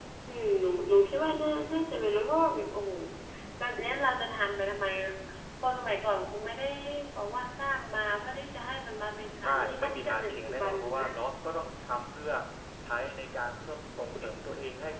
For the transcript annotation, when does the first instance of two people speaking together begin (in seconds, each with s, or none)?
9.4 s